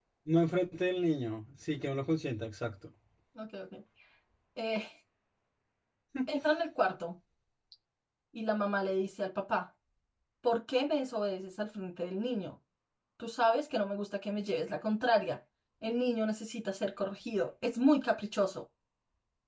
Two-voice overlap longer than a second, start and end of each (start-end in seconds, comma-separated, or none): none